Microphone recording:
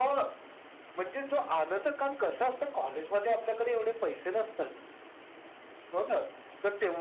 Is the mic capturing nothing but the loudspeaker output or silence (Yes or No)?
Yes